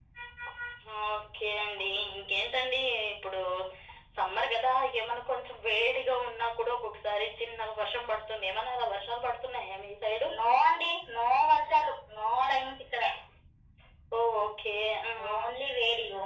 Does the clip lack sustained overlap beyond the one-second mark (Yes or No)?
Yes